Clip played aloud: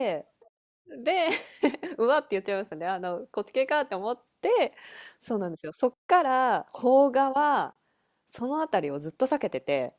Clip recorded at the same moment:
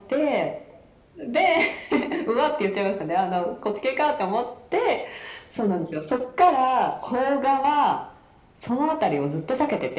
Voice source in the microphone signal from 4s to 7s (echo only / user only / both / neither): echo only